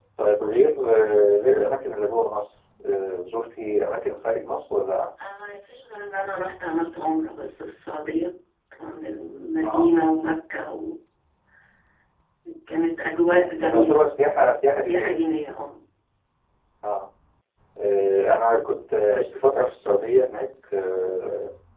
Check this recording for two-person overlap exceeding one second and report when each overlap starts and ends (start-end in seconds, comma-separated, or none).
none